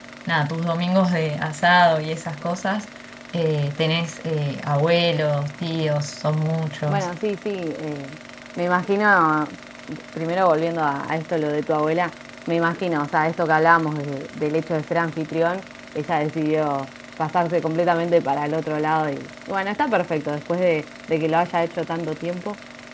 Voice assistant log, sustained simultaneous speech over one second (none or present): none